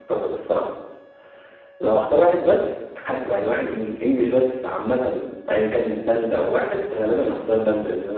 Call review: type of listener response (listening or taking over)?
listening